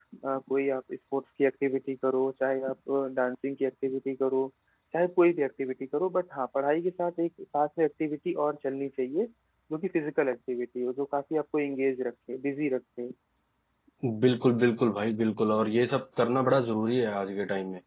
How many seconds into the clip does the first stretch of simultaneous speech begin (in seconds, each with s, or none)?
none